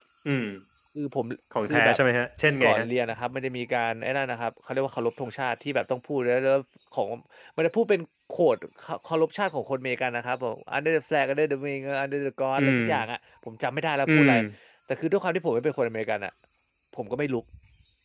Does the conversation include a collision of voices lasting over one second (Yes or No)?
No